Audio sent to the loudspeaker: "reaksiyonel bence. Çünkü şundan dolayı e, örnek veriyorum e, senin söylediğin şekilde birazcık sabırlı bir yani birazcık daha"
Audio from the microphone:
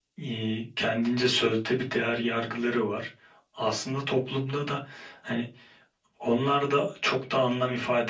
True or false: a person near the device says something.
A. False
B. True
B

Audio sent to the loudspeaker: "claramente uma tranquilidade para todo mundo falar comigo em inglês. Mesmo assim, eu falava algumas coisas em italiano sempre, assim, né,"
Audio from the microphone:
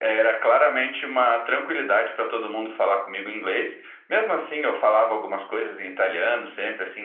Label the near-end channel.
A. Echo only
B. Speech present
A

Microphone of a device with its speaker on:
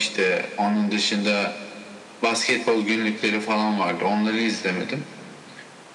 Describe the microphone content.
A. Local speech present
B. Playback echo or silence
B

